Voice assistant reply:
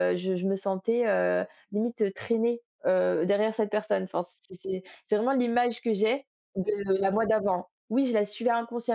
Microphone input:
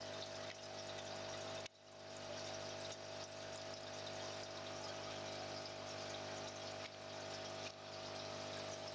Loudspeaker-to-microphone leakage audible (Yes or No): No